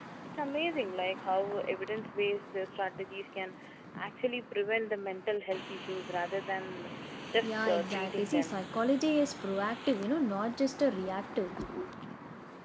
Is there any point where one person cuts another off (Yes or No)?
Yes